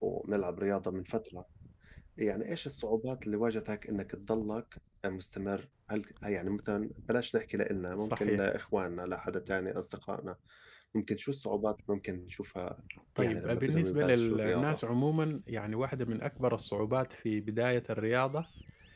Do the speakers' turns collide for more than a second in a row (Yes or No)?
Yes